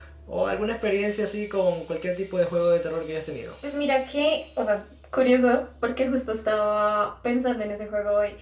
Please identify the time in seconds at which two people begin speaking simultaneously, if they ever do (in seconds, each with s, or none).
none